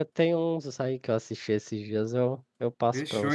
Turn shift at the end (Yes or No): Yes